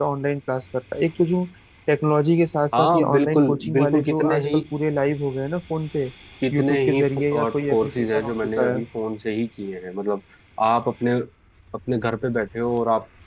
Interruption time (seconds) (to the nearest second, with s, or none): 3 s